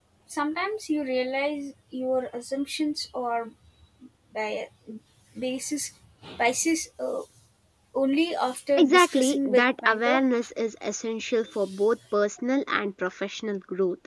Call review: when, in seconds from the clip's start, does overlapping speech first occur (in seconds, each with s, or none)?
8.8 s